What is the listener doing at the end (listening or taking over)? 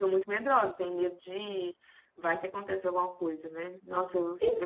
listening